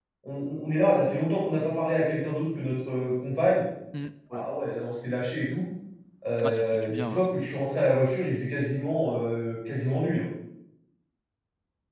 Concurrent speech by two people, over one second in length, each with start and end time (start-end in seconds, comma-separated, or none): 6.4-7.6